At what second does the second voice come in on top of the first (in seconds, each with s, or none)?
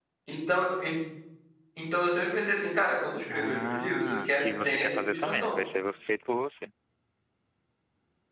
3.3 s